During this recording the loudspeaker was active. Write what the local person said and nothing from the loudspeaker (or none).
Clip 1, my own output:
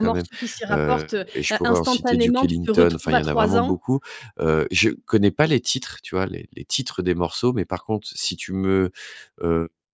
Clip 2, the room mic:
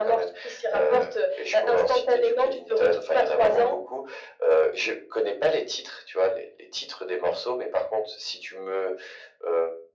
none